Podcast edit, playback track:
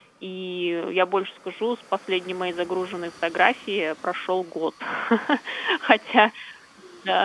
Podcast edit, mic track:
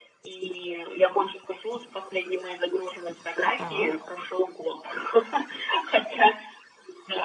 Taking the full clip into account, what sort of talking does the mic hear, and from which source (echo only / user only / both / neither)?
both